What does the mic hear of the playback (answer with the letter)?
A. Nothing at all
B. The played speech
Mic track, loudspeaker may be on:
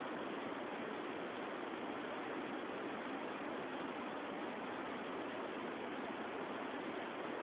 A